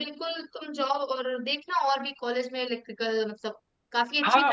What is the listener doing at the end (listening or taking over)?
taking over